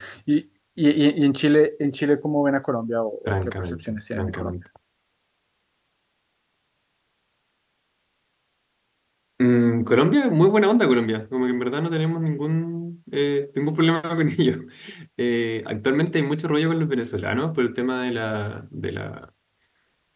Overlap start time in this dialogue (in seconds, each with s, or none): 3.3 s